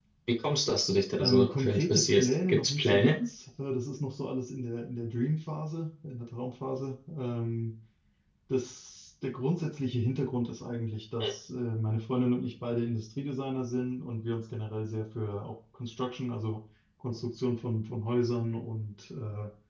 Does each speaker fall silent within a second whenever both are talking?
No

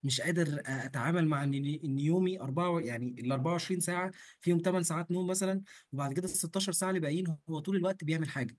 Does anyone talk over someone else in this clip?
No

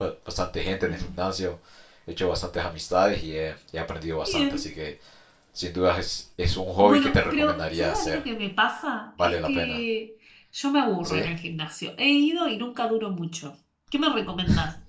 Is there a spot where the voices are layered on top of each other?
Yes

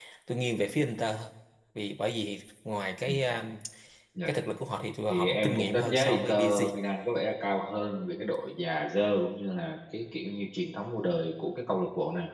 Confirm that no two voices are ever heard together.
No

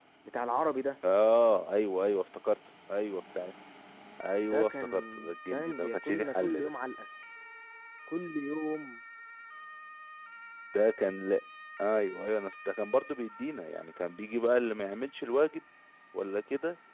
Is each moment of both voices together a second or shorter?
No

